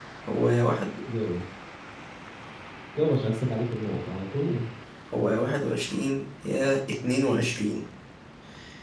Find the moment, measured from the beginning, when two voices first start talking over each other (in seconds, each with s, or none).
none